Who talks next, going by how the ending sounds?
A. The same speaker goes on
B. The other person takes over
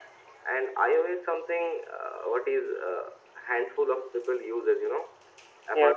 A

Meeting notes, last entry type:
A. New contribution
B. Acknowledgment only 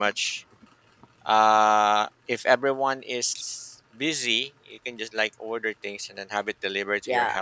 A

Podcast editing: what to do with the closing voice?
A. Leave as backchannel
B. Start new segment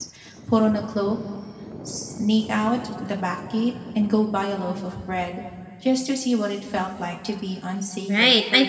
B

